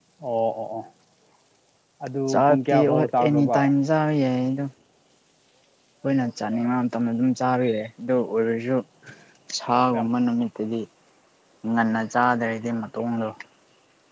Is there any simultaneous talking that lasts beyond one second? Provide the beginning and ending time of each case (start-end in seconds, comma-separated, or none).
2.3-3.6